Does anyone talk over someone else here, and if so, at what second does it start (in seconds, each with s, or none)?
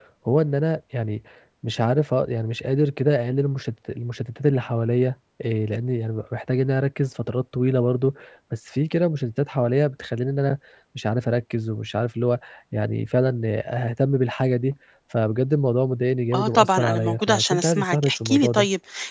16.3 s